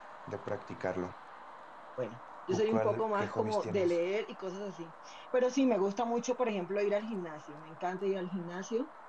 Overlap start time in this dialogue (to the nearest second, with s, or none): 3 s